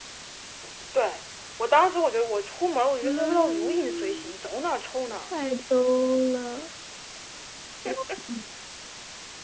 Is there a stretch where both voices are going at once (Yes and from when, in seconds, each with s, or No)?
Yes, from 3.0 s